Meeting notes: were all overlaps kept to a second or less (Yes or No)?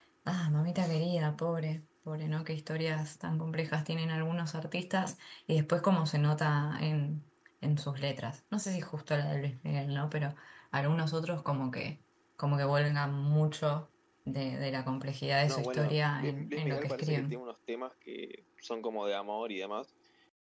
No